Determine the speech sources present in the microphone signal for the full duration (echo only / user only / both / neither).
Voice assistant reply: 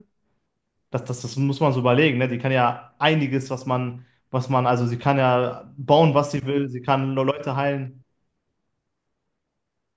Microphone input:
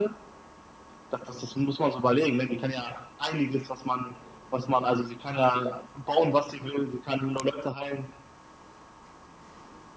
echo only